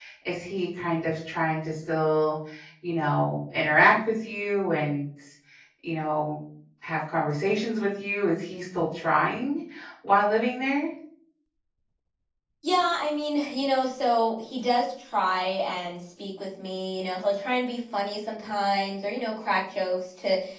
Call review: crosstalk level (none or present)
none